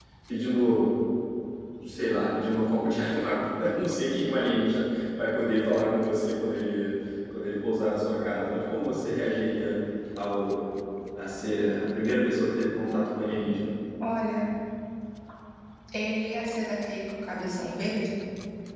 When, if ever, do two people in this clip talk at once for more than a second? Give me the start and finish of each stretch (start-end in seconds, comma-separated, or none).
none